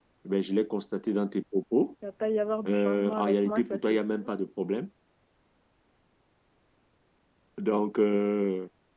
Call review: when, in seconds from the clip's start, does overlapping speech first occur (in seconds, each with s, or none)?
2.7 s